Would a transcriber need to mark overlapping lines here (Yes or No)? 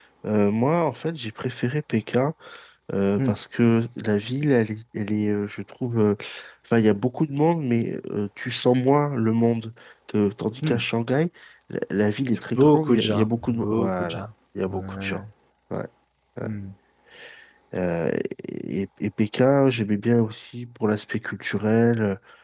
Yes